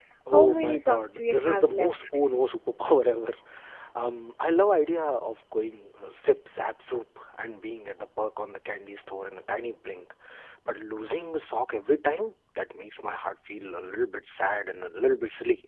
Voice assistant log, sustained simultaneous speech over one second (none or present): present